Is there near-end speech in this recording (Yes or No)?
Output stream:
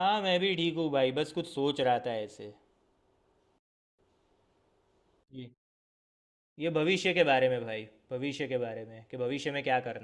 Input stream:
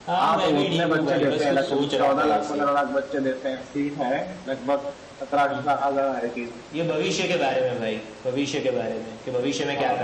Yes